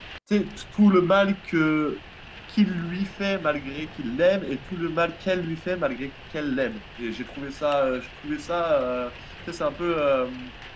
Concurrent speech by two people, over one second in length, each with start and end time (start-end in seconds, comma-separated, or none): none